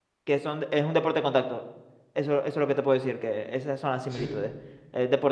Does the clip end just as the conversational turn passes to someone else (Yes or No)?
No